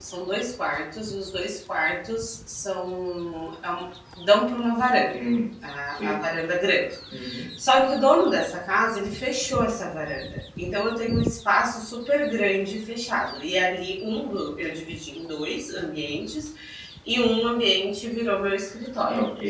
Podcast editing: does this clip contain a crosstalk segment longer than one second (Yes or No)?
No